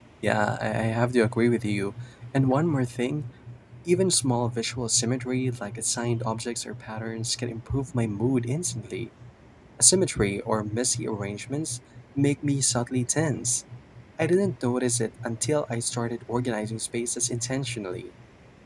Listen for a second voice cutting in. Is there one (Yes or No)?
No